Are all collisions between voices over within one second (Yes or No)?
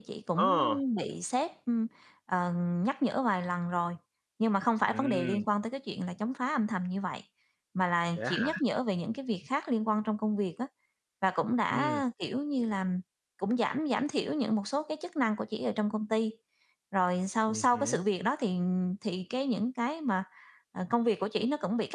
Yes